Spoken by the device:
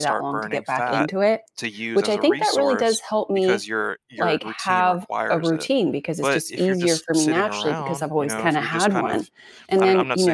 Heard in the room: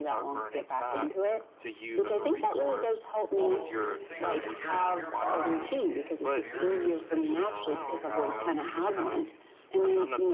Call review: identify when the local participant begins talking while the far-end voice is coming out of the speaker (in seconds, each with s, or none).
3.3 s